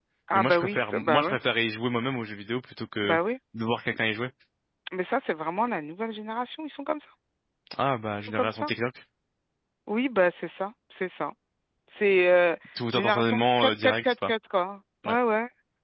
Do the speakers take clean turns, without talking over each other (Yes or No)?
No